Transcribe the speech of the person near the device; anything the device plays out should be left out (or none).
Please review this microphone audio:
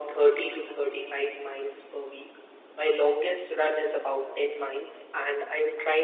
none